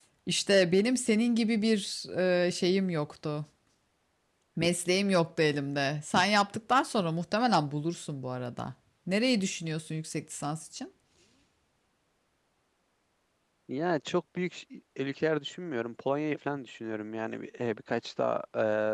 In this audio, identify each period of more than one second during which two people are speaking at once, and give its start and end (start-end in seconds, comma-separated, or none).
none